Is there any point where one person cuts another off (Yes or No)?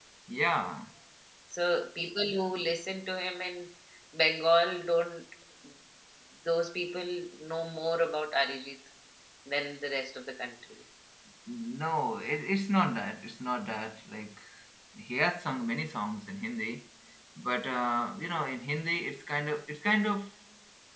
No